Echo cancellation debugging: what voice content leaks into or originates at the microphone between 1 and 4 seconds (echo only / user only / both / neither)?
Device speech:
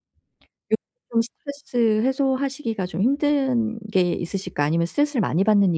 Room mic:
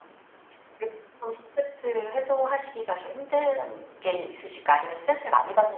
echo only